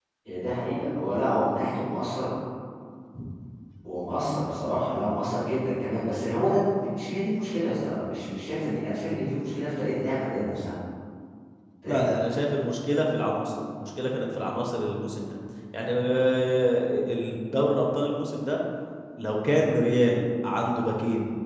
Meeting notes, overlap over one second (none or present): none